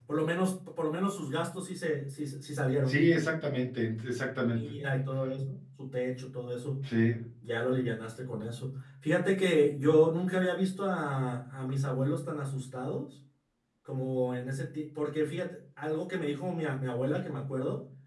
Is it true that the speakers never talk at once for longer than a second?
Yes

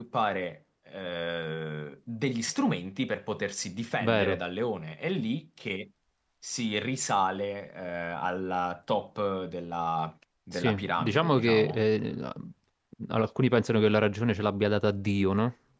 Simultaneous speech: Yes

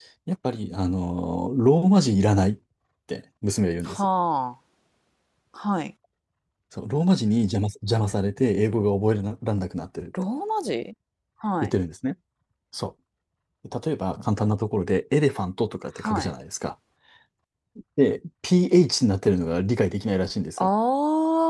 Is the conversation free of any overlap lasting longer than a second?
Yes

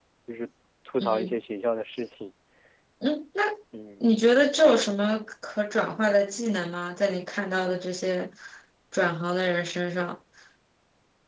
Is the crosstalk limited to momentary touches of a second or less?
Yes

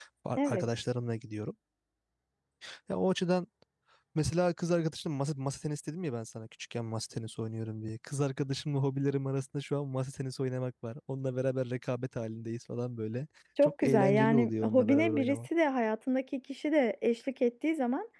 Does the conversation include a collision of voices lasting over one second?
Yes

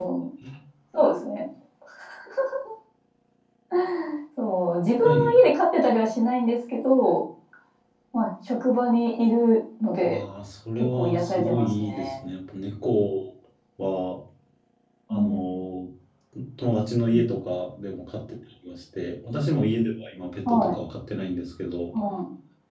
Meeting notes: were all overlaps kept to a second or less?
No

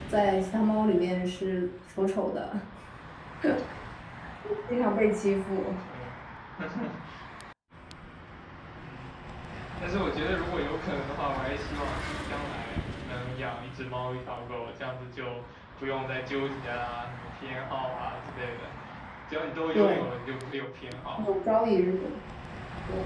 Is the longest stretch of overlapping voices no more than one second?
Yes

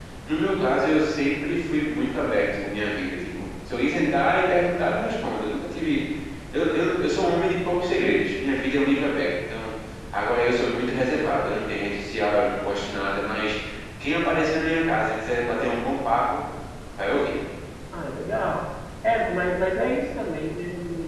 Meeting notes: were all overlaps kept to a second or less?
Yes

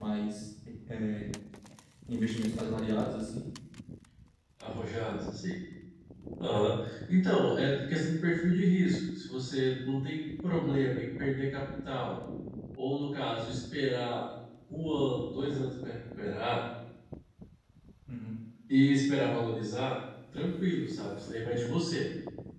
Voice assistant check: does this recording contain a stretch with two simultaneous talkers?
No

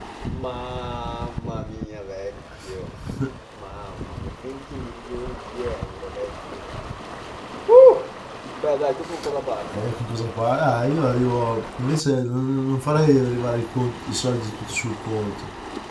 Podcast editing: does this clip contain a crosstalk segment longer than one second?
No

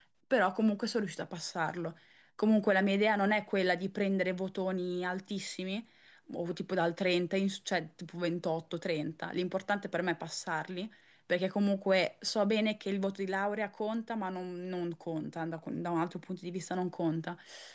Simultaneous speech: No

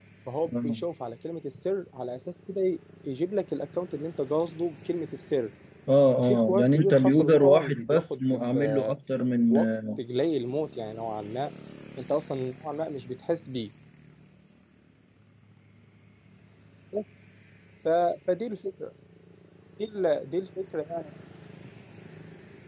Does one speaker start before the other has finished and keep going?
Yes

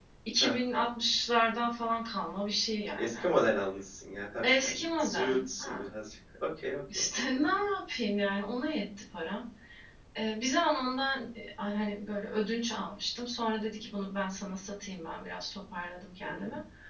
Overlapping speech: Yes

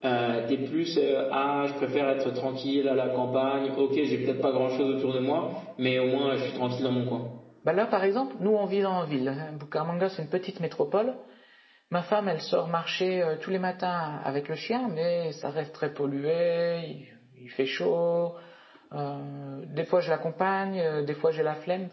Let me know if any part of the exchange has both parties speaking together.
No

